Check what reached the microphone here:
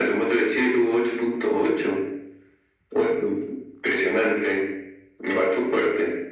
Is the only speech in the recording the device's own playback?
Yes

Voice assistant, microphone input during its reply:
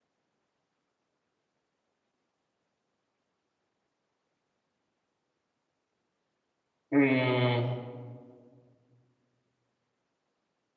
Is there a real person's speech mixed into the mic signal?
Yes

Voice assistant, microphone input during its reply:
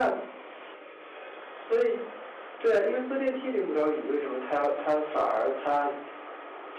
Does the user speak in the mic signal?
No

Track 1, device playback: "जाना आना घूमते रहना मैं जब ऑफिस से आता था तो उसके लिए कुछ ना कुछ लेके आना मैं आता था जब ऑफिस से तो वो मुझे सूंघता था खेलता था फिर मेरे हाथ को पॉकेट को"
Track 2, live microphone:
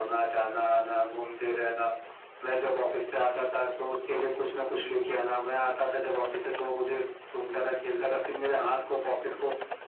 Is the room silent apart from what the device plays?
Yes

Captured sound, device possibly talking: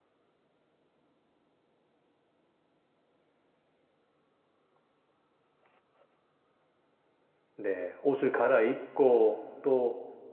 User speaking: Yes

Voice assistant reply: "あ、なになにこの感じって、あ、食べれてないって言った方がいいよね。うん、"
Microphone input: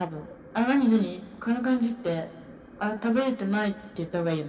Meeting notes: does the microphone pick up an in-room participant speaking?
No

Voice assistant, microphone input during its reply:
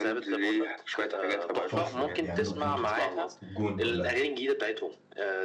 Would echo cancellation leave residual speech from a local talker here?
Yes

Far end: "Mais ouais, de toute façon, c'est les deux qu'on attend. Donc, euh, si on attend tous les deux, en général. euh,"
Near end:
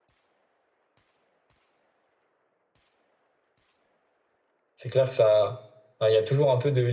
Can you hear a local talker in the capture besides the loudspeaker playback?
Yes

